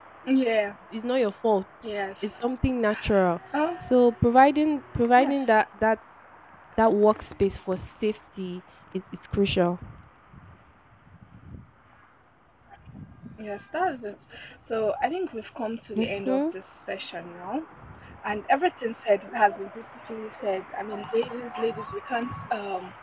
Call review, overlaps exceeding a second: none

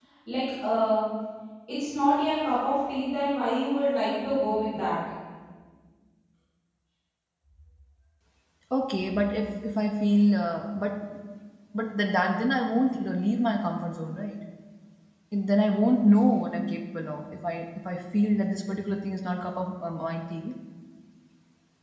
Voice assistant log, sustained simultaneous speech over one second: none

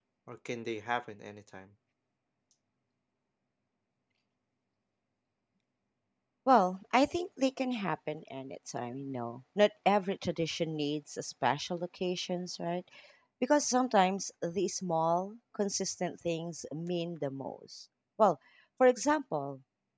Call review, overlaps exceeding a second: none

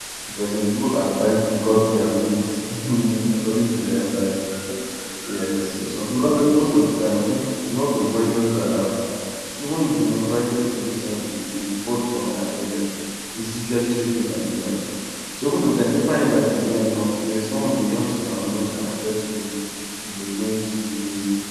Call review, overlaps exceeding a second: none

